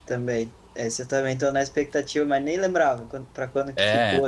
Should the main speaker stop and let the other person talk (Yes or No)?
Yes